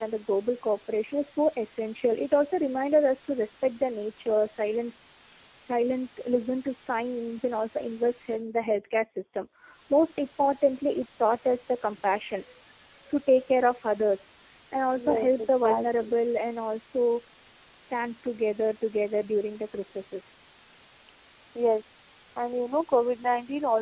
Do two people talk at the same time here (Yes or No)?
Yes